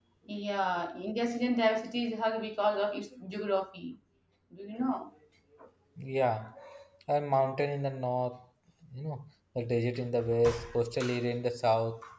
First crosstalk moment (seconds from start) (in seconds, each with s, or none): none